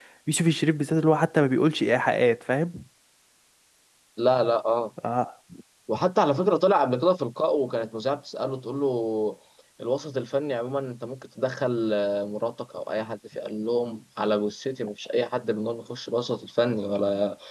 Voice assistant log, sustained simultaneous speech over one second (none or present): none